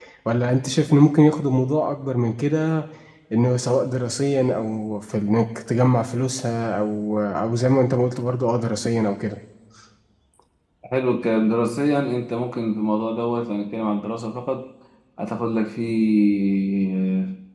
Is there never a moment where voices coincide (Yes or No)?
Yes